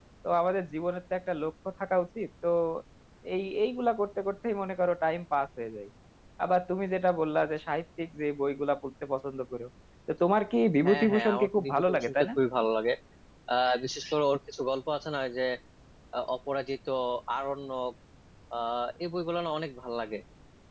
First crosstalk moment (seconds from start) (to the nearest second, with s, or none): 11 s